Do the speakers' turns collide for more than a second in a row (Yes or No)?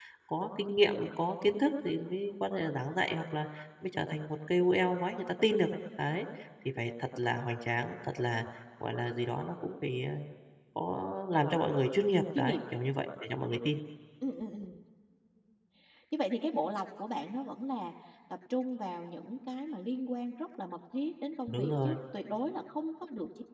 No